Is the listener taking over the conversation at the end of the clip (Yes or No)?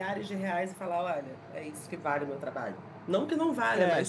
Yes